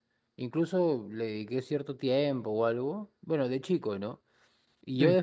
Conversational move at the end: listening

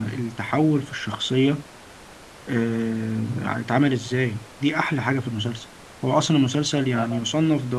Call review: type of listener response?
listening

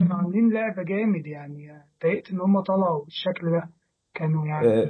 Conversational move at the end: taking over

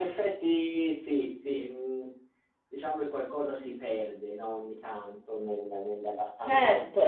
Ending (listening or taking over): taking over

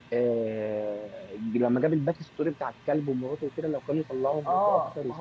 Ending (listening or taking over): taking over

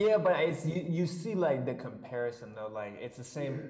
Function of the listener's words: listening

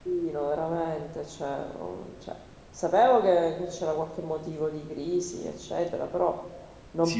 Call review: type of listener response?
taking over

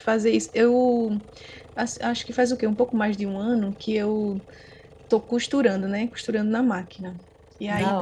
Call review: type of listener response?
listening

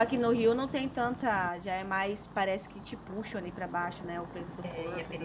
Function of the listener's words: taking over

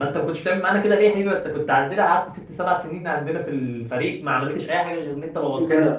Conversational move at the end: listening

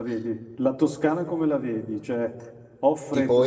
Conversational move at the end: taking over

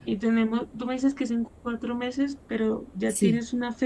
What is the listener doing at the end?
listening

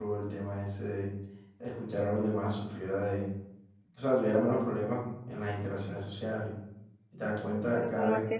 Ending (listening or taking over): taking over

